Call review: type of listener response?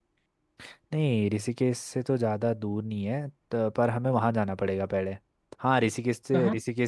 listening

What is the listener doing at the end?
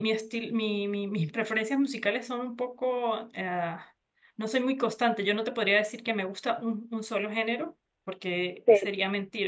listening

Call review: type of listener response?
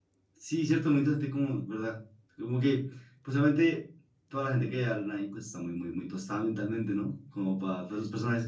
taking over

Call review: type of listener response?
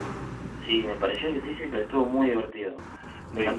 taking over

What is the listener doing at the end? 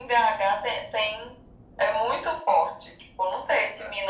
listening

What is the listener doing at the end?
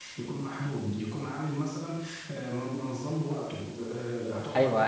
taking over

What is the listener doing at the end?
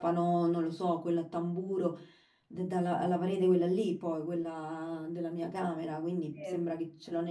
listening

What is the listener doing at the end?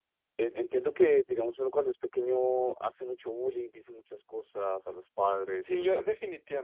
taking over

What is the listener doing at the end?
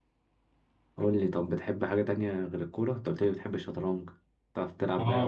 taking over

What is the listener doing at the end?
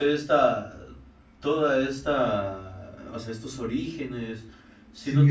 taking over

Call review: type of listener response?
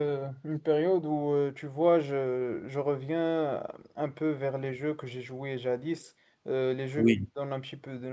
listening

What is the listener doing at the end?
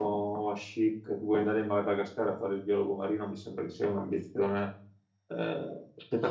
taking over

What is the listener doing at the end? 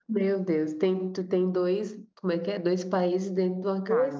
taking over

